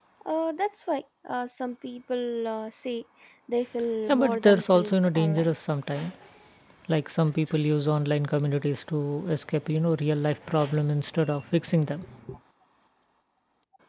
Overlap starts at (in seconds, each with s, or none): 4.1 s